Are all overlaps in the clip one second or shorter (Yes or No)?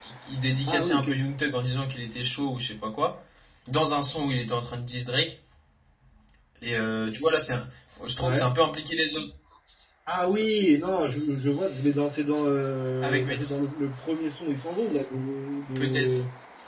Yes